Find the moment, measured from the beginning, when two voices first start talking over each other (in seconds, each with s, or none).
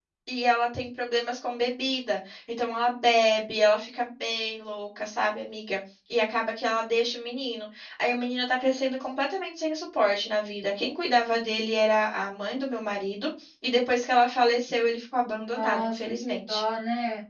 15.4 s